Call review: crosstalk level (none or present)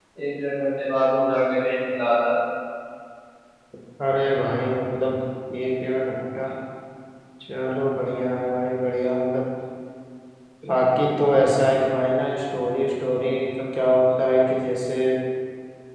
none